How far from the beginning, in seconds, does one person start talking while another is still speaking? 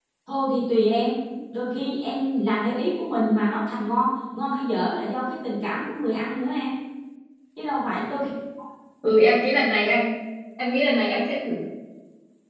none

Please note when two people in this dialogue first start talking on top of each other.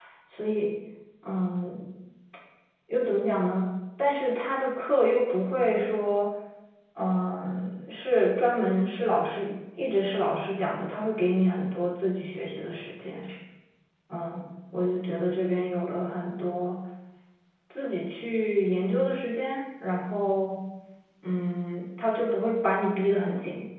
none

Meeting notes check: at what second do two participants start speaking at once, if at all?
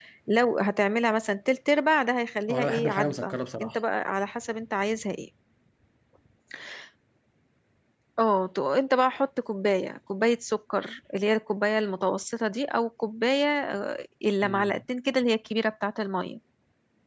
3 s

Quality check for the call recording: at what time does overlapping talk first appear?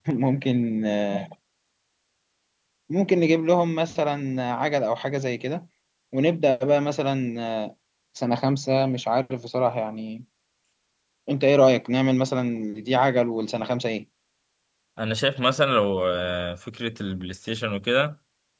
none

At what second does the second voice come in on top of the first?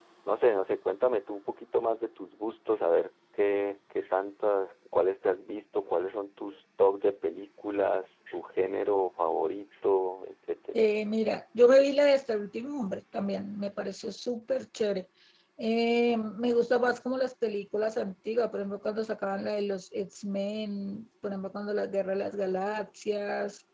none

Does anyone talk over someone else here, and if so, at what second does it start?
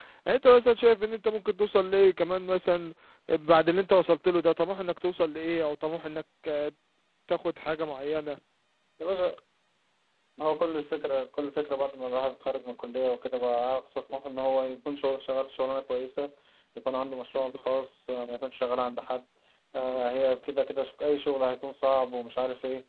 none

